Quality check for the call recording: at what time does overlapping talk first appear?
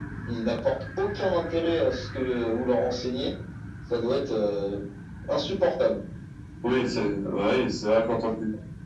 none

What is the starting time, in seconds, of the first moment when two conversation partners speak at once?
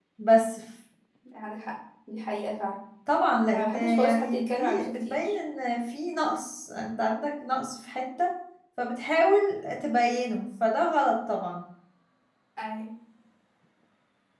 4 s

